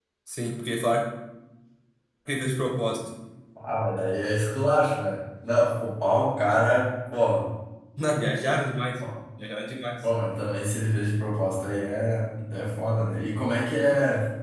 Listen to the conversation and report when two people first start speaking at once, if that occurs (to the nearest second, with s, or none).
none